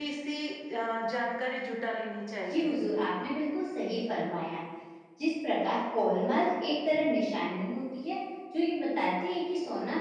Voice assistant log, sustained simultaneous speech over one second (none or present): none